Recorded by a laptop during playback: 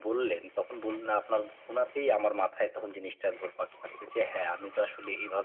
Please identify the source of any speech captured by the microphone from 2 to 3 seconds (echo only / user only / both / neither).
echo only